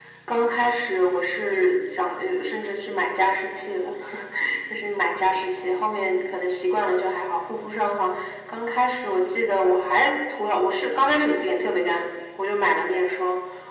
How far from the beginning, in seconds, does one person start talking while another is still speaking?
none

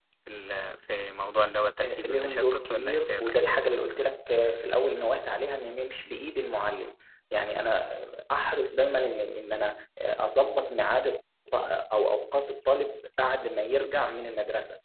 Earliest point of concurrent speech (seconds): 1.8 s

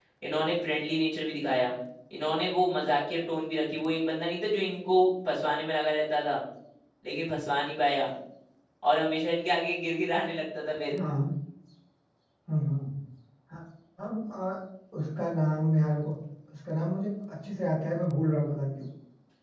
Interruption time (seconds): none

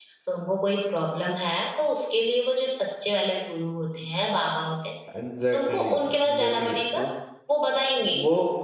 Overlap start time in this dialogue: 5.5 s

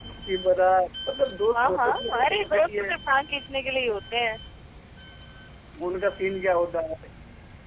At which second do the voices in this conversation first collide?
1.5 s

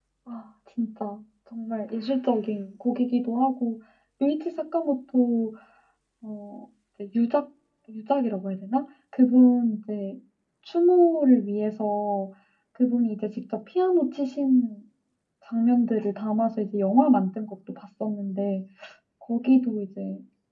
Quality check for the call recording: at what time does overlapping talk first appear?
none

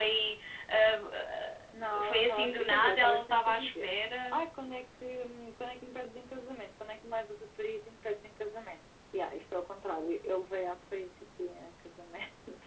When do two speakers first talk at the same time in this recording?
1.9 s

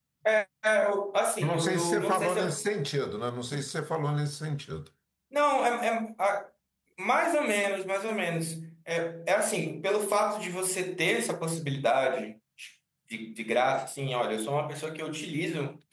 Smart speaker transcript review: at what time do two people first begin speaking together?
1.4 s

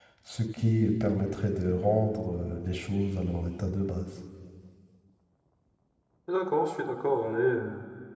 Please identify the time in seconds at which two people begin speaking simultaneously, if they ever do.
none

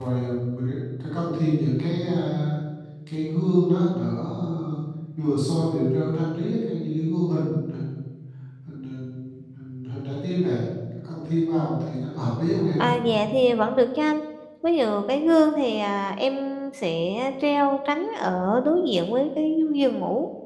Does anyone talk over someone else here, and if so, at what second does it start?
none

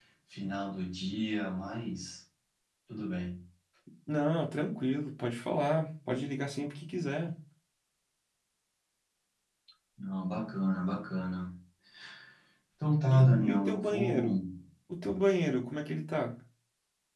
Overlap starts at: 13.1 s

